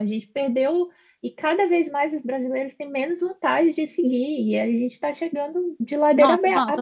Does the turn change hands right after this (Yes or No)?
Yes